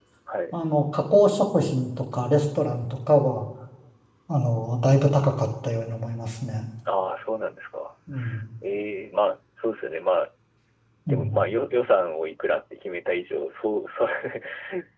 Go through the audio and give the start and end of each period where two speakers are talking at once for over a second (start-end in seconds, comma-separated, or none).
none